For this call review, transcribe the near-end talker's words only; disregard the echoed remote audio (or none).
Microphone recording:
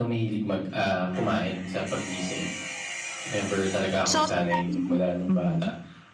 So sa dami ng mhm,